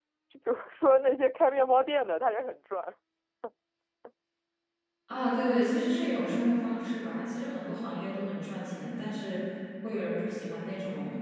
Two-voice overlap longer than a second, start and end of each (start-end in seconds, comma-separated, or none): none